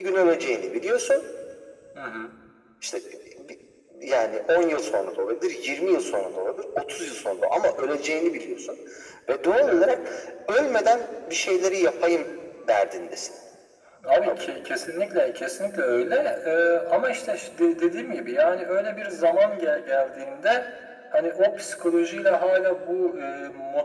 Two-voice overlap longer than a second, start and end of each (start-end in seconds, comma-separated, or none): none